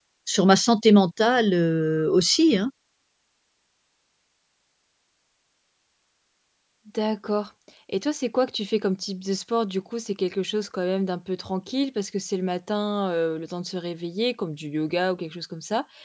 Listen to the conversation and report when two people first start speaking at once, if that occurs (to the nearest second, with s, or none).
none